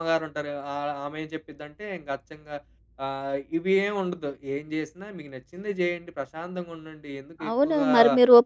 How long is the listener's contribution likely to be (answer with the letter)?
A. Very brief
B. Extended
B